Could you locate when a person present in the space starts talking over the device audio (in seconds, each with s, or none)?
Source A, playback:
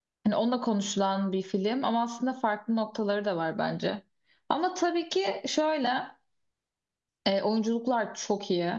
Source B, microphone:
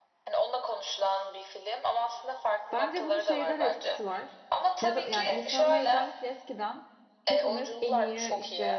2.7 s